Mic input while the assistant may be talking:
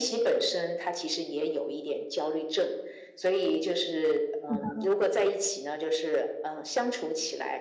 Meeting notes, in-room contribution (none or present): present